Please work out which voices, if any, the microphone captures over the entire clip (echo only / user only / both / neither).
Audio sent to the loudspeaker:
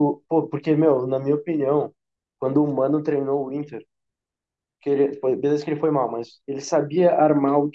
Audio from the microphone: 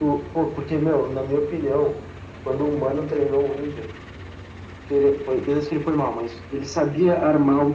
echo only